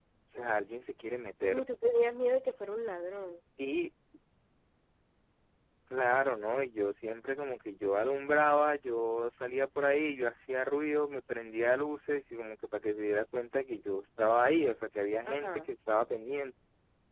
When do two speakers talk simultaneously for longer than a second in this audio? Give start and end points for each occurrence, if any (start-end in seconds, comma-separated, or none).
none